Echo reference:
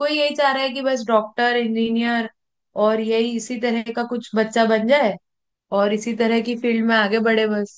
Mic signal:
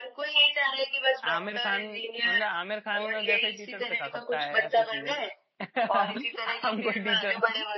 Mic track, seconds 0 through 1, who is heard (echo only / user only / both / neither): echo only